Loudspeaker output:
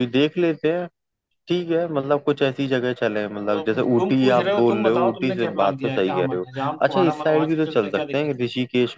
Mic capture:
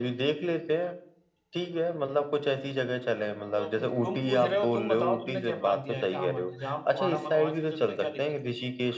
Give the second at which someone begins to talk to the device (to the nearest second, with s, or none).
none